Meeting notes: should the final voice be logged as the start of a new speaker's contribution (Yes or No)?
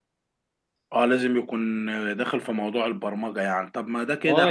Yes